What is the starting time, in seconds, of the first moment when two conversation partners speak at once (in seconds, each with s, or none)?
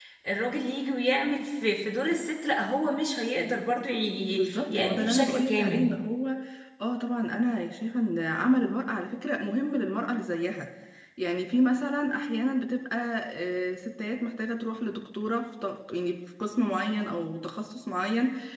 4.4 s